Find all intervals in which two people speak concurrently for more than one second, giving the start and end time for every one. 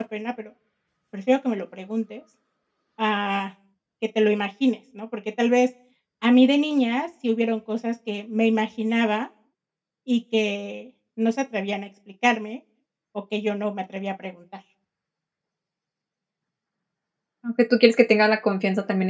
none

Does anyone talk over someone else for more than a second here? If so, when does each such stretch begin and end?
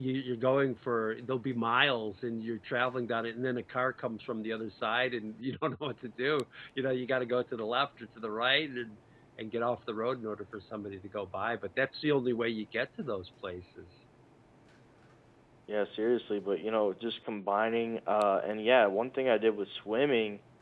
none

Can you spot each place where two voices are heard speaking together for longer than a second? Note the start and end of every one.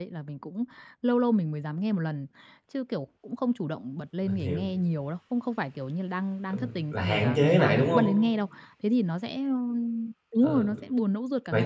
6.5-8.1

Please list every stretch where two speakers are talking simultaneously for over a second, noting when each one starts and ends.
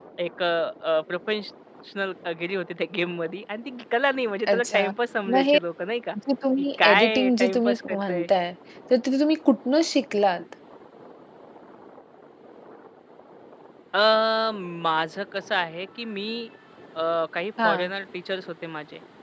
6.8-8.3

